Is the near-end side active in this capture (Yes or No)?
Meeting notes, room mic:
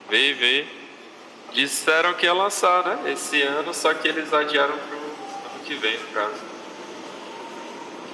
No